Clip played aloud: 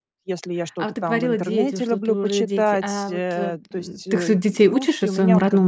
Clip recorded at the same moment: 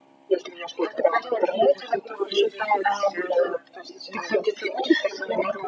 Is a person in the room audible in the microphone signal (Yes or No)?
No